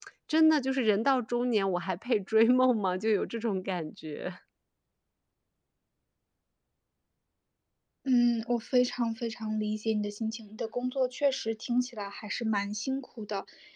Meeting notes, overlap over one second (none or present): none